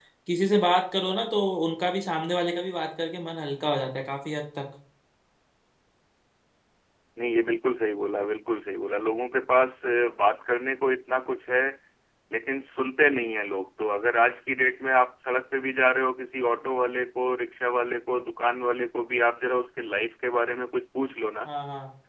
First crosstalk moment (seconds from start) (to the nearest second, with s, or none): none